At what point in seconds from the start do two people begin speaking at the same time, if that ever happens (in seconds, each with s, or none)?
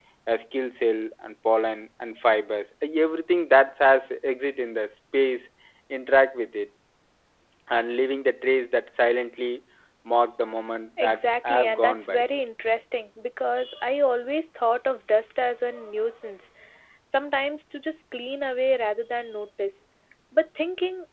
11.0 s